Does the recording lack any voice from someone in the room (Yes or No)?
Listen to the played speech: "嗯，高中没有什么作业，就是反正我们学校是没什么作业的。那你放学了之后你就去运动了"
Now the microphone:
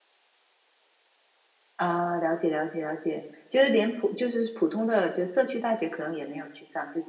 No